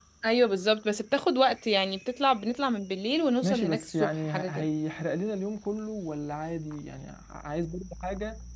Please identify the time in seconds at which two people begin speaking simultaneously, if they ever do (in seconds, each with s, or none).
3.4 s